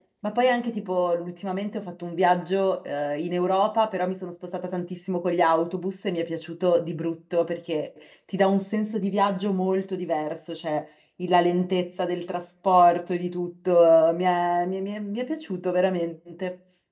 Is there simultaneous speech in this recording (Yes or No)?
No